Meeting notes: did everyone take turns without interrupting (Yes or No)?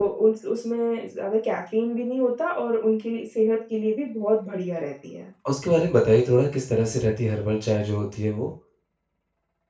Yes